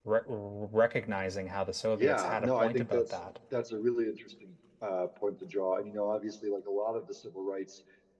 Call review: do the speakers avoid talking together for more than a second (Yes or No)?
No